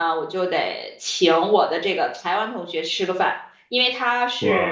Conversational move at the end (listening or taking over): listening